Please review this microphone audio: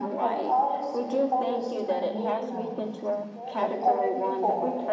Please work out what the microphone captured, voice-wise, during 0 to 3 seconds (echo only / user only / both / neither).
both